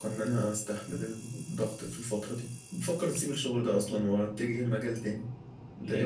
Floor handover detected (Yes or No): Yes